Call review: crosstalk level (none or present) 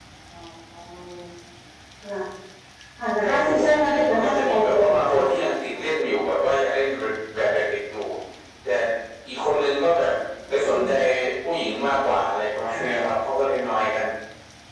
present